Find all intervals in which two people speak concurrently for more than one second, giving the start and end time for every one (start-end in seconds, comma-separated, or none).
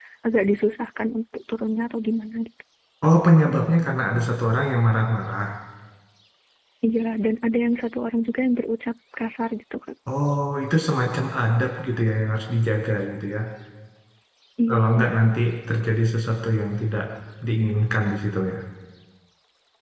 none